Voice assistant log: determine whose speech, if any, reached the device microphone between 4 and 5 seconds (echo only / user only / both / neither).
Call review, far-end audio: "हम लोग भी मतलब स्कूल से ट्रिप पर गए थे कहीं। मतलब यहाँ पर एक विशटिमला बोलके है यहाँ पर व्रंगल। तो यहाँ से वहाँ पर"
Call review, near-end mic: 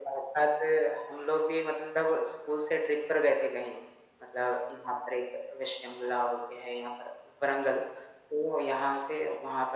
echo only